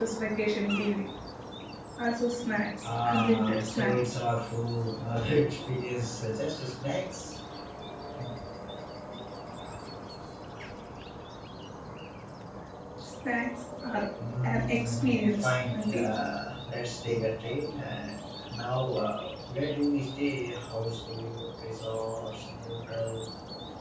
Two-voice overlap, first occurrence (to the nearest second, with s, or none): 3 s